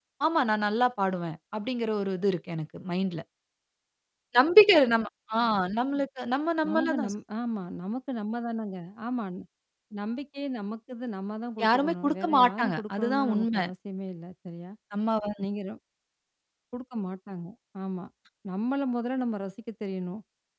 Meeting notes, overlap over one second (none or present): present